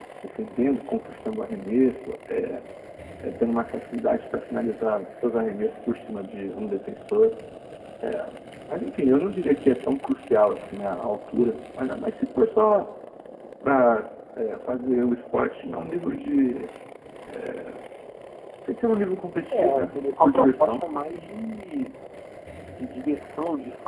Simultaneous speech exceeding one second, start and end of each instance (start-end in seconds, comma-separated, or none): 19.5-20.9